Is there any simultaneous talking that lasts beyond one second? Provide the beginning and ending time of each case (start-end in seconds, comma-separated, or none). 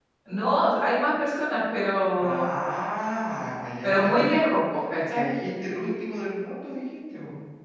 none